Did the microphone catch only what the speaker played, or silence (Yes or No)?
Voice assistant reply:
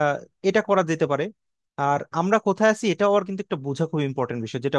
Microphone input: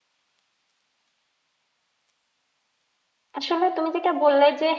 No